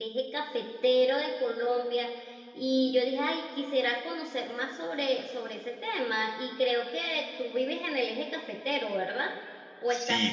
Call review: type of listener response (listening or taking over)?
taking over